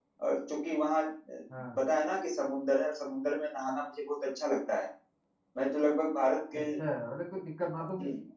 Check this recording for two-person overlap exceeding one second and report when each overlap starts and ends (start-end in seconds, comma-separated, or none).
none